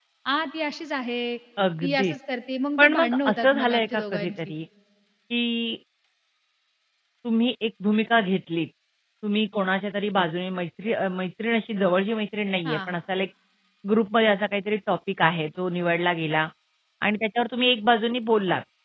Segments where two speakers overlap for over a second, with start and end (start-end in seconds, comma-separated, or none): 2.8-4.4